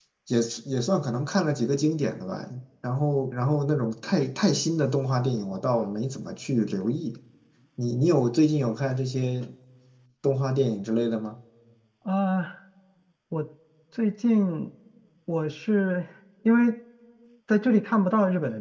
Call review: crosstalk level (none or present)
none